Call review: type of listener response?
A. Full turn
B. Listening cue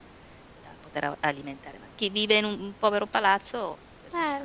A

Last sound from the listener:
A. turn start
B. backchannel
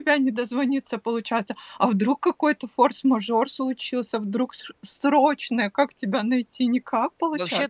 A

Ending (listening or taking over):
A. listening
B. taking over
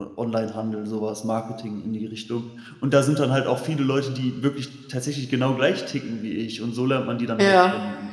B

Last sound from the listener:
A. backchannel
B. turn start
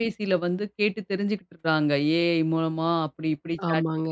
A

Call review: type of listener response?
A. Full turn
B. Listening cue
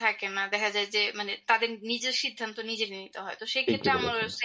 B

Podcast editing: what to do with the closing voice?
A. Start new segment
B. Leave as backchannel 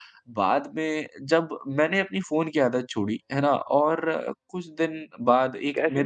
A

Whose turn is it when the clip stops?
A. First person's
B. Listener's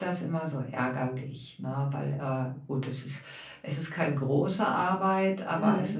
A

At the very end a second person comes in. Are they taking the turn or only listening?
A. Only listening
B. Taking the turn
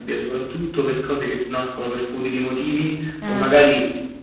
A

